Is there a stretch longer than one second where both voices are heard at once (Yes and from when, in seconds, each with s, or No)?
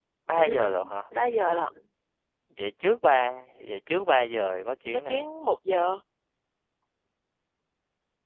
No